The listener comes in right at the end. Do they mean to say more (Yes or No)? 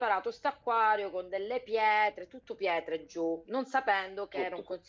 No